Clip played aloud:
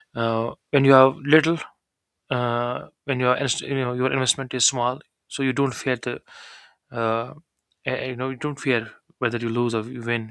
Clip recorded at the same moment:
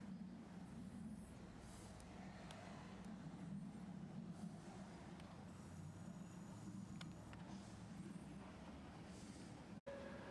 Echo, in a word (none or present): none